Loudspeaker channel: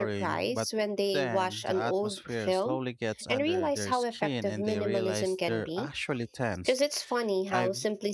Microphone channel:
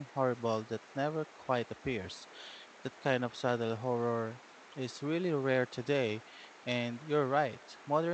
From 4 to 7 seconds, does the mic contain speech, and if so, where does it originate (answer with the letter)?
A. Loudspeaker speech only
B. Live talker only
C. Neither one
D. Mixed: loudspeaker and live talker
B